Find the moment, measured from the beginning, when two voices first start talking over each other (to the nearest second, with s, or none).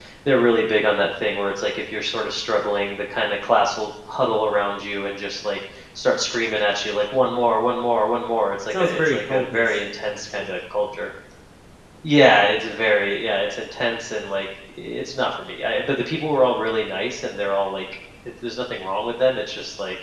9 s